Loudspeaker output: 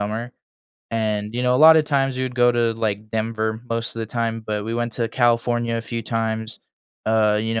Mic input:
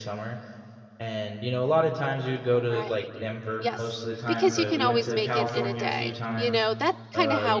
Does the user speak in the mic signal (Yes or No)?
Yes